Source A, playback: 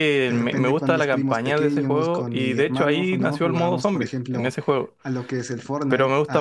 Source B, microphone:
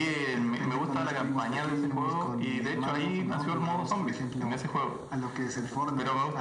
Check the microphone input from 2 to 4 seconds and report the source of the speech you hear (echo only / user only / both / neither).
echo only